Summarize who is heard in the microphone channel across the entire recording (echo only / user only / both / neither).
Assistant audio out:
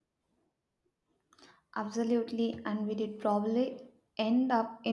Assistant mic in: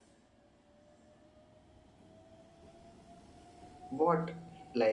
user only